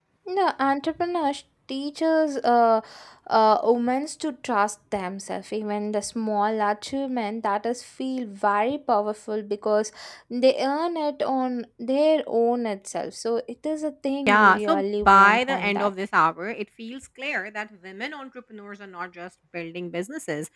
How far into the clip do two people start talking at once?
14 s

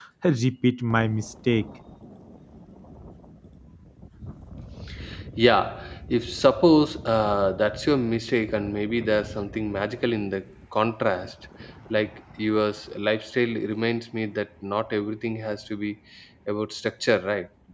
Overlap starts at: none

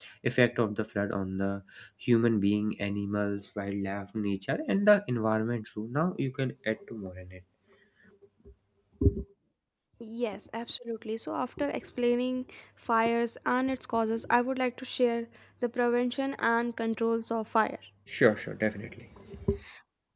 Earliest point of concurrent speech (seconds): none

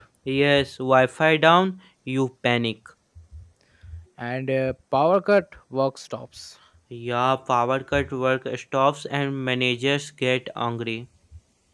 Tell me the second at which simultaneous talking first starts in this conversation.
none

